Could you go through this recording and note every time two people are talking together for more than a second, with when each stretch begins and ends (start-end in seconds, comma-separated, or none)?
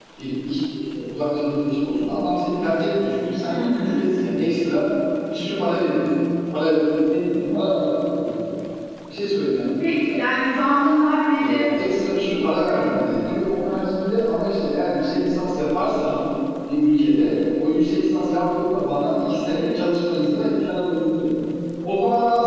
none